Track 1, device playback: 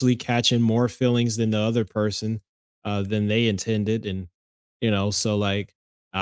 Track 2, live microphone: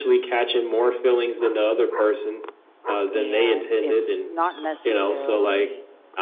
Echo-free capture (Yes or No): No